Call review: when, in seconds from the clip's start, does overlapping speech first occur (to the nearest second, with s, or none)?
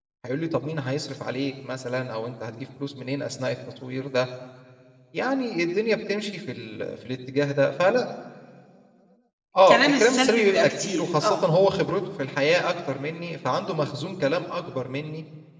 10 s